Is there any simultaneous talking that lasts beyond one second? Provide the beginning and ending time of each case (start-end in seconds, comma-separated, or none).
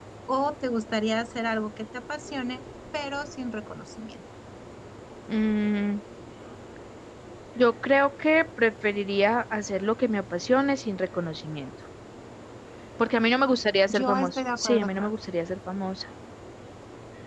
13.8-15.1